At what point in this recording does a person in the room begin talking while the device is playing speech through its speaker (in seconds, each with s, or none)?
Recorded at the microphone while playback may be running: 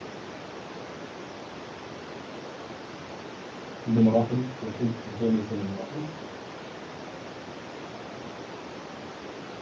3.8 s